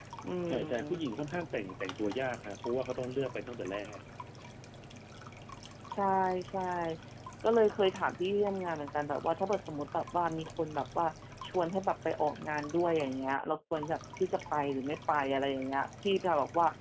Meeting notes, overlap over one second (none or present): none